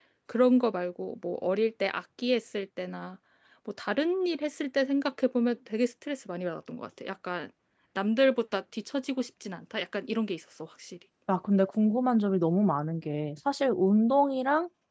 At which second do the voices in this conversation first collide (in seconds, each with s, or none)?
none